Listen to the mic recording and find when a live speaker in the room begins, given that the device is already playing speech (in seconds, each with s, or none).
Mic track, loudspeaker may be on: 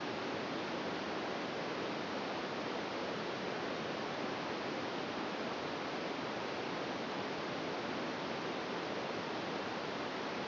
none